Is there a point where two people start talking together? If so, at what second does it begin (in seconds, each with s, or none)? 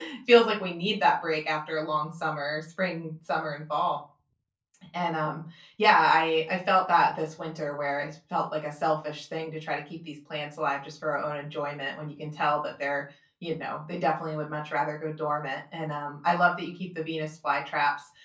none